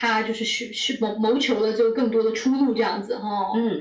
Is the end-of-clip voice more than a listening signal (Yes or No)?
Yes